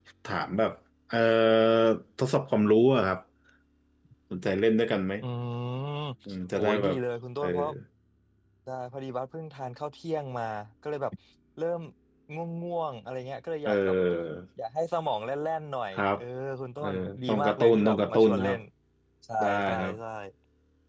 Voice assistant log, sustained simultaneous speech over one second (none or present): present